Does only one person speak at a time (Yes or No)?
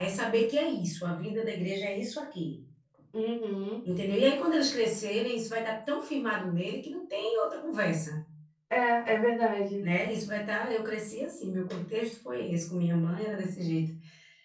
Yes